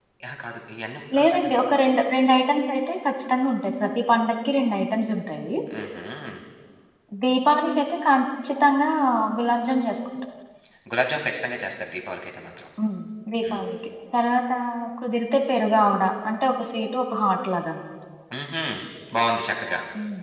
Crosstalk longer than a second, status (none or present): none